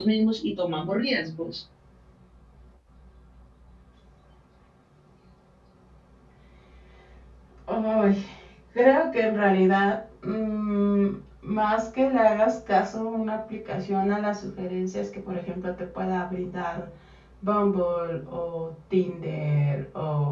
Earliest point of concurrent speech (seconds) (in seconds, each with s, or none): none